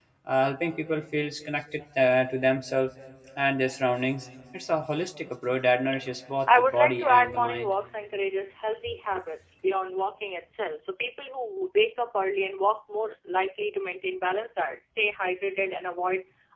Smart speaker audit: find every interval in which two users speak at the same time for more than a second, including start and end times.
6.5-7.7

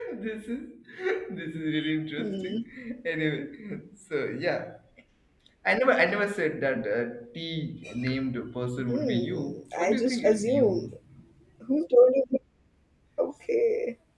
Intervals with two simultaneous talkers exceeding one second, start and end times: 8.9-10.8

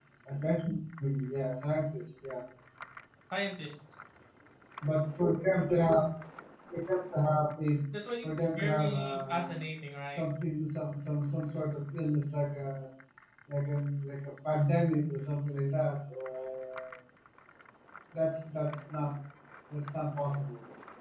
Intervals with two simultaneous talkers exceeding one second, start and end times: 8.2-9.5

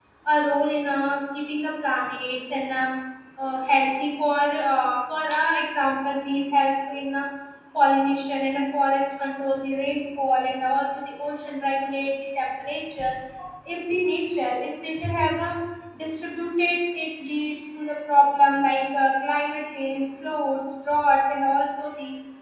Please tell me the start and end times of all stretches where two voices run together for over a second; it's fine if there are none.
none

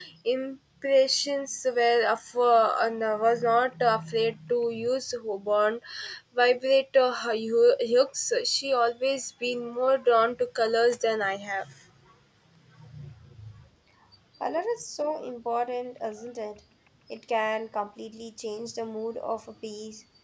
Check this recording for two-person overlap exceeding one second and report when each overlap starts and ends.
none

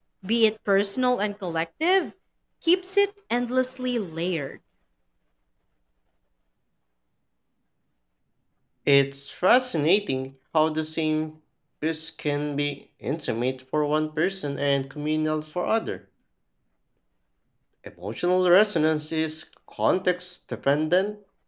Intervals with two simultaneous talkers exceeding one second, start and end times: none

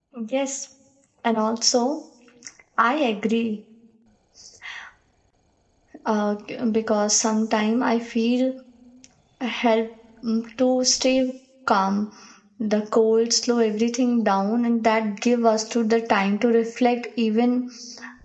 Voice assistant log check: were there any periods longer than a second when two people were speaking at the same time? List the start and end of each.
none

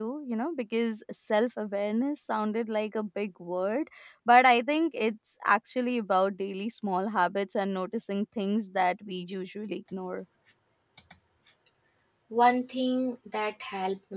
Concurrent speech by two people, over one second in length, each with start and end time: none

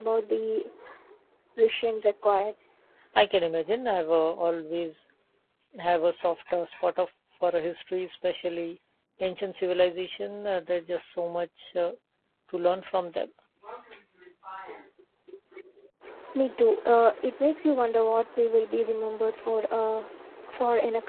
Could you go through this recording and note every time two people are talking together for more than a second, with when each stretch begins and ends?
none

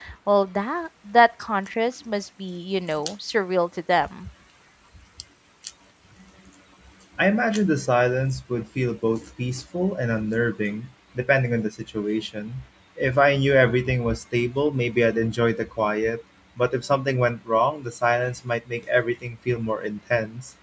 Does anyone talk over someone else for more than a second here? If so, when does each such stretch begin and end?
none

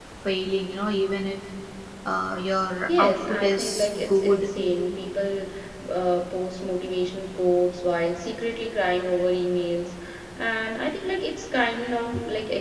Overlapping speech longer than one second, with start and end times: 2.9-4.5

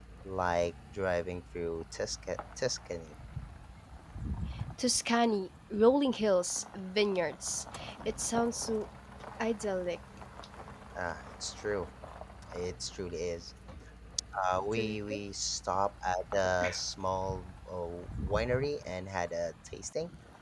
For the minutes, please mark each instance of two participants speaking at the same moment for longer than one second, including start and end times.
none

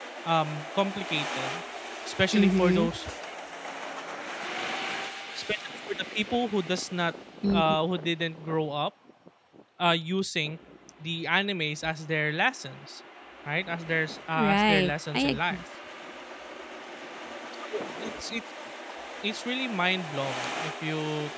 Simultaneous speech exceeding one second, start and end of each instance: 14.3-15.6

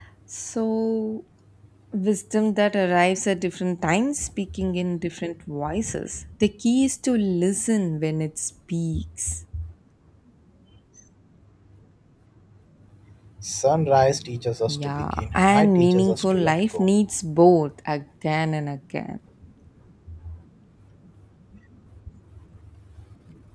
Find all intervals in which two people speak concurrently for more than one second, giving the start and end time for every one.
14.7-16.9

